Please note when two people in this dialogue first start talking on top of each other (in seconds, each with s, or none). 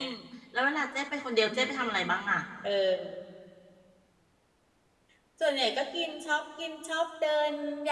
none